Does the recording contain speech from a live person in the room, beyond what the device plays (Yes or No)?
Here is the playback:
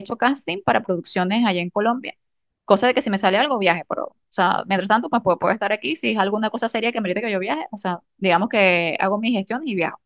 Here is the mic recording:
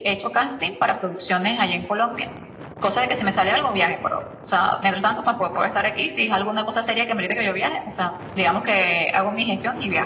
No